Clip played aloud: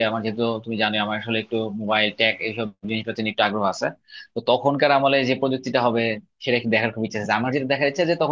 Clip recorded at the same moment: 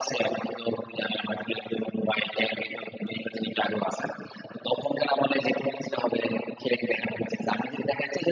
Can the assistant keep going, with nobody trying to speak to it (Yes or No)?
Yes